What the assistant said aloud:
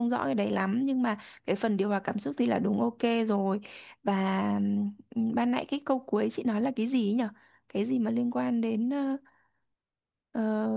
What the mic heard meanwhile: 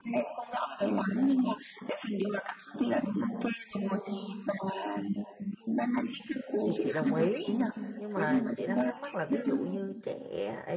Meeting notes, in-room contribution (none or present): present